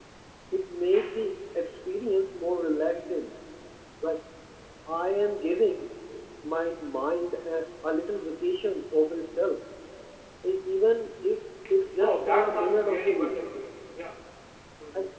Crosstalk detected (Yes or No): Yes